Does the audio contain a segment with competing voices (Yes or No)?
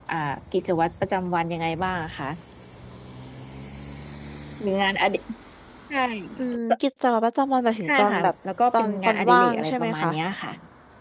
Yes